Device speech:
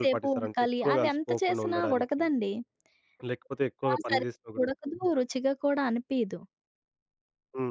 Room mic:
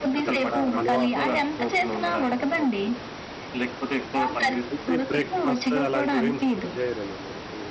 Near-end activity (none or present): present